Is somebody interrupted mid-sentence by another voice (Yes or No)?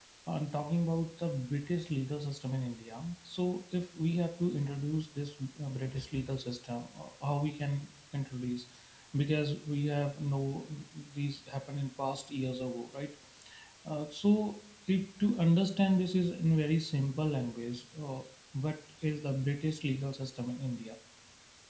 No